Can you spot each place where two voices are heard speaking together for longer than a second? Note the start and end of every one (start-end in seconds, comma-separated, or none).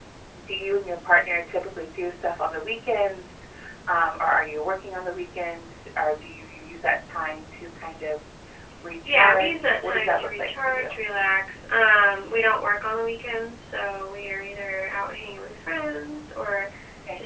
9.1-10.9